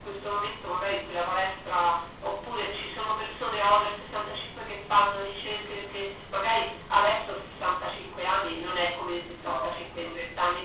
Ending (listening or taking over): listening